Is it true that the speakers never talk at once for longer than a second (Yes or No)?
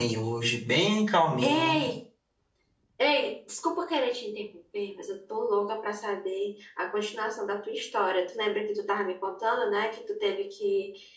Yes